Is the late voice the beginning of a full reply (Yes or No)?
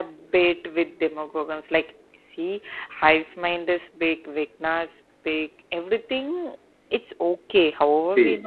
No